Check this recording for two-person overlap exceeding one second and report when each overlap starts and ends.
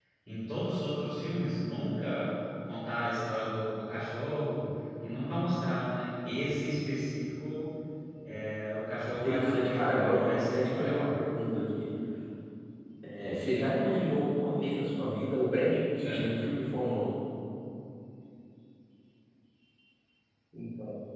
9.2-11.1

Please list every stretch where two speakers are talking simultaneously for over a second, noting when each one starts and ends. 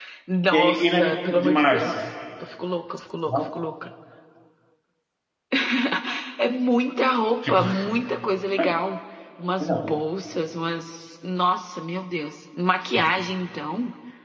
0.5-2.1

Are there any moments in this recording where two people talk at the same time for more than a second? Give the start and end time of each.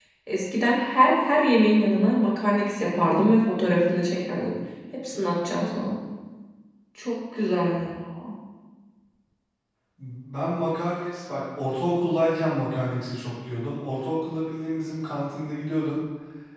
none

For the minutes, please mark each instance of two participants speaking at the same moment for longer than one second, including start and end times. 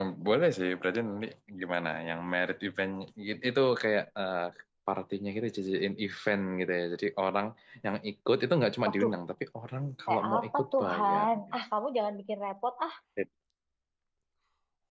10.1-11.4

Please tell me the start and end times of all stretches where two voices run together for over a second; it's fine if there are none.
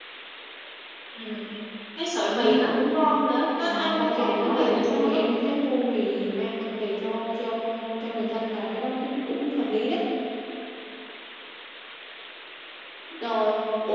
3.6-5.2

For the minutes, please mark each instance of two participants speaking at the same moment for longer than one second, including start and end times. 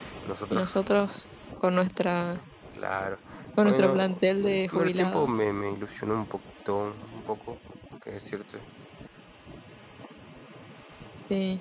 3.6-5.3

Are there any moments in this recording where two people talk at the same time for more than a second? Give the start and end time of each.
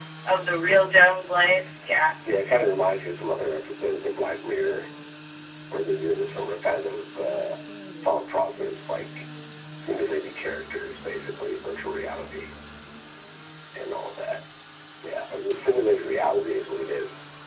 none

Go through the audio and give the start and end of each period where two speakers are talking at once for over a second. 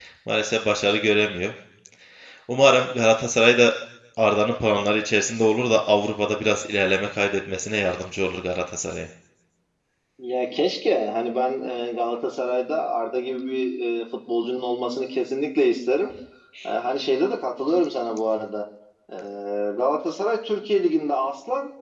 none

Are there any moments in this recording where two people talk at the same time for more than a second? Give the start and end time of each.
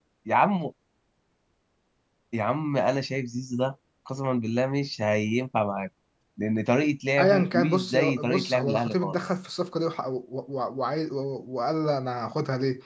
7.2-9.2

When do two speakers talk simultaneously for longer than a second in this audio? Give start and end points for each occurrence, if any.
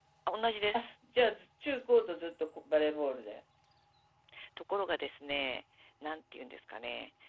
none

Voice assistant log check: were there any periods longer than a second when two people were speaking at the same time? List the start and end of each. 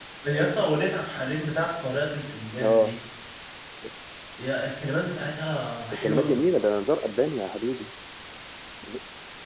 none

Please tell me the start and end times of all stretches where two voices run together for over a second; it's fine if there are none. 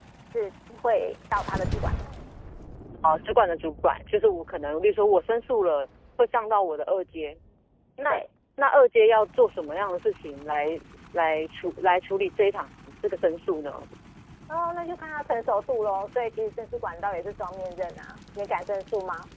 none

